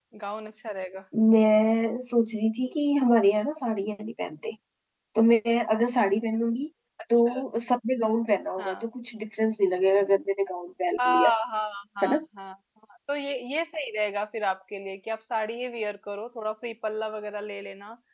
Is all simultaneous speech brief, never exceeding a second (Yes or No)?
Yes